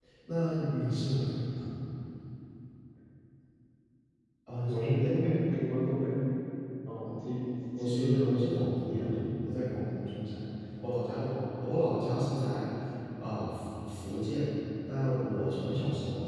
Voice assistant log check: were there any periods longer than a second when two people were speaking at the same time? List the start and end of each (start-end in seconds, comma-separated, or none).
7.8-9.2